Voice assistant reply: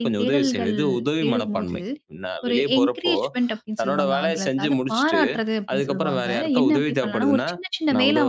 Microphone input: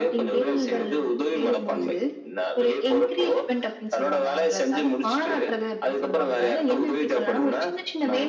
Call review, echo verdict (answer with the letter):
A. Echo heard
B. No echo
A